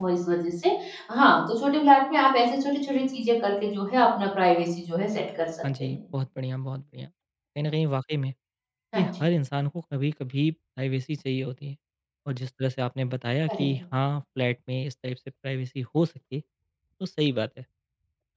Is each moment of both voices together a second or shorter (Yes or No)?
Yes